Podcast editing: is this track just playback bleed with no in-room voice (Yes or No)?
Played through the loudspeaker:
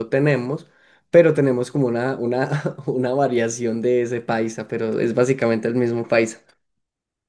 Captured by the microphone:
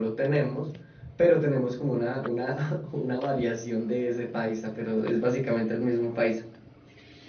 Yes